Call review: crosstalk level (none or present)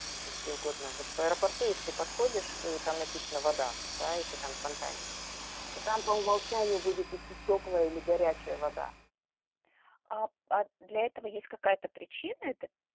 none